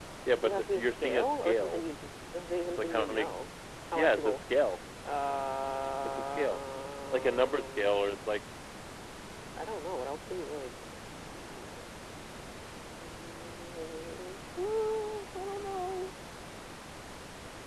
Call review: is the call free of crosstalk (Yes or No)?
No